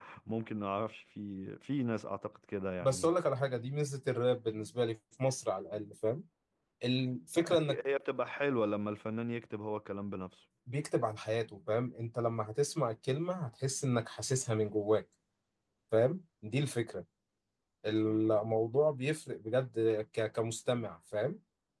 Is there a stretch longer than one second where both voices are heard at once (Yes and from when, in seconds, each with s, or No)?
No